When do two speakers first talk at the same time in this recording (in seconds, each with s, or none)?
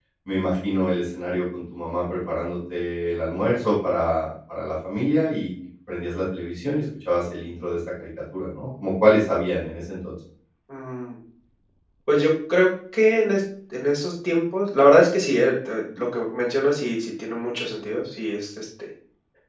none